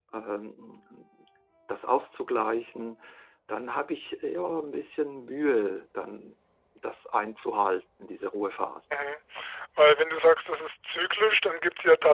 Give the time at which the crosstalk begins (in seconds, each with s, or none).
none